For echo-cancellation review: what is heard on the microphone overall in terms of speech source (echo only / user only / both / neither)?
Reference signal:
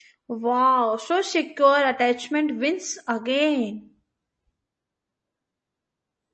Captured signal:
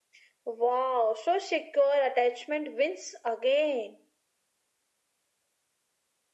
echo only